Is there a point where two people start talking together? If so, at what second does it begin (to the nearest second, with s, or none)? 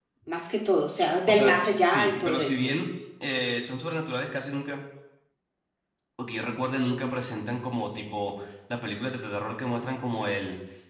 1 s